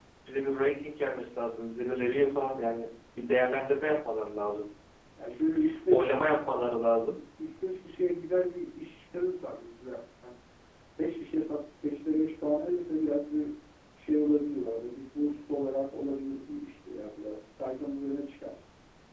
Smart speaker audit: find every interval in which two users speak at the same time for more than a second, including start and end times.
none

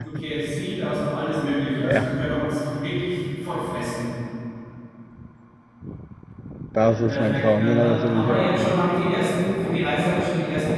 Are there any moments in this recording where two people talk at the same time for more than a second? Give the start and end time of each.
6.8-8.7

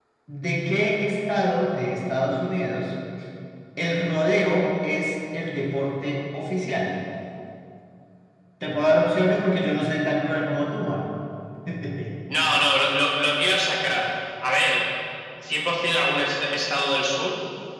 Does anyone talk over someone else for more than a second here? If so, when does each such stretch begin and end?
none

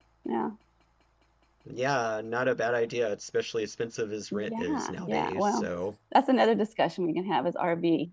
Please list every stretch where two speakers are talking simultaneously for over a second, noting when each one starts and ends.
4.3-5.7

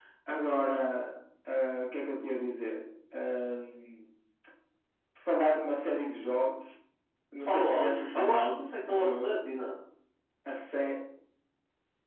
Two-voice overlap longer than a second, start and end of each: 7.5-9.4

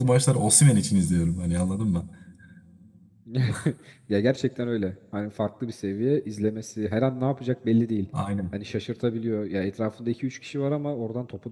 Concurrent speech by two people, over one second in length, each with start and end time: none

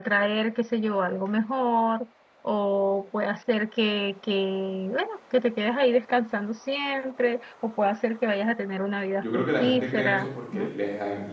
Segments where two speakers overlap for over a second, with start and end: 9.2-10.7

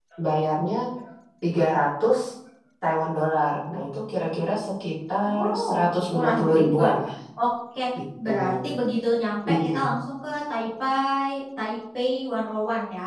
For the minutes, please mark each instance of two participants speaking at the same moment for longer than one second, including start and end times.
5.3-6.8

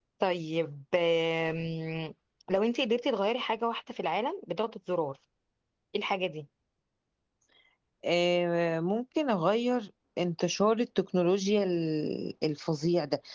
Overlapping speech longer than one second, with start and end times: none

